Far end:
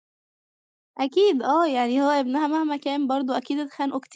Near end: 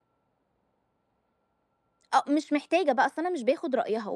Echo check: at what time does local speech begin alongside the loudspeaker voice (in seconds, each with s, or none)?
2.1 s